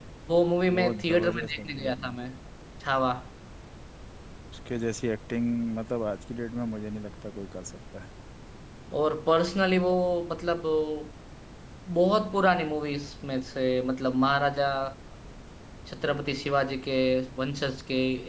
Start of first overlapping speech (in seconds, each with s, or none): 0.6 s